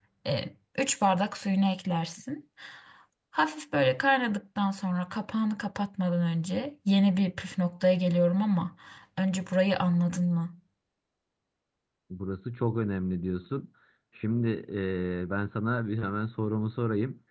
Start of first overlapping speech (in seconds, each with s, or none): none